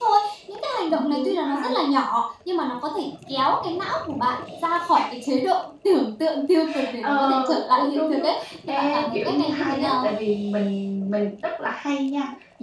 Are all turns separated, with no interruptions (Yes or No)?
No